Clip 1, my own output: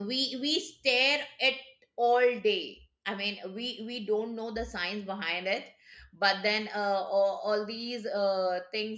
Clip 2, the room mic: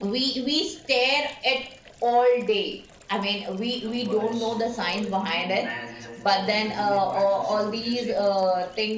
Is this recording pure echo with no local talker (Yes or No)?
No